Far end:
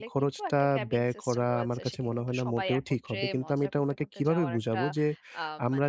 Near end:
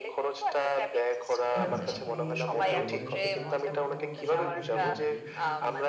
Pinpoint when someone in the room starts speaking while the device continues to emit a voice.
2 s

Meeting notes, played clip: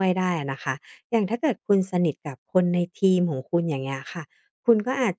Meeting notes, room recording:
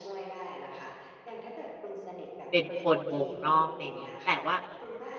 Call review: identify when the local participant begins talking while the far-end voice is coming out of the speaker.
3 s

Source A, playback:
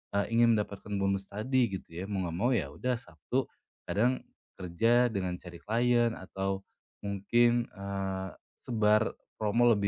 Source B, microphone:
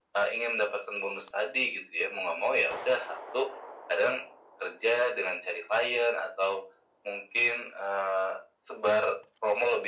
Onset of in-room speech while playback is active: none

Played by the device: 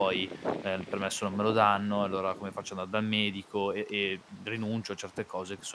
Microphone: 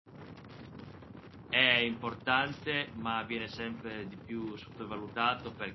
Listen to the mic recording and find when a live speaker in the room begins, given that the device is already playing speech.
1 s

